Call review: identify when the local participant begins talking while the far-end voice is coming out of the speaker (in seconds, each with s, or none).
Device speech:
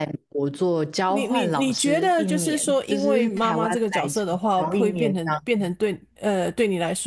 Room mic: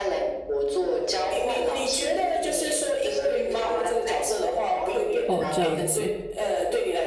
5.2 s